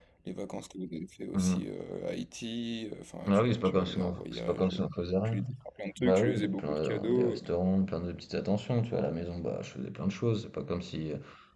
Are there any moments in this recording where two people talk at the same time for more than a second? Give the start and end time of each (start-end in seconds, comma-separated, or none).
3.3-4.8, 6.0-7.4